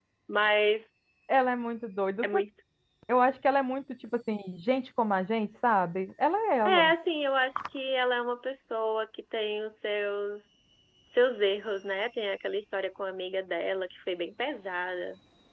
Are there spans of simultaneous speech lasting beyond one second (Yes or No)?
No